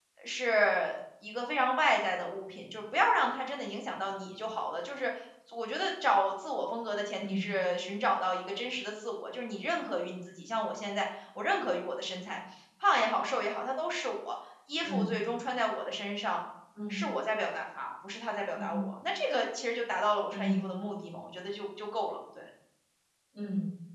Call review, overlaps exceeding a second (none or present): none